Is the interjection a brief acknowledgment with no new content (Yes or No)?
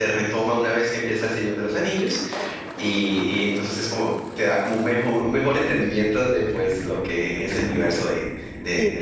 No